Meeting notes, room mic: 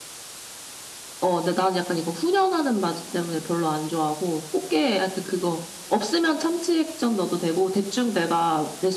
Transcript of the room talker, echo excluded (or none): none